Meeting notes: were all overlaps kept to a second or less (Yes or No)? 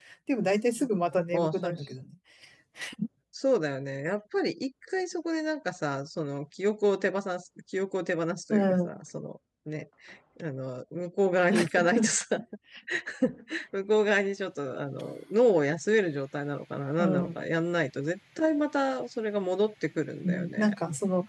Yes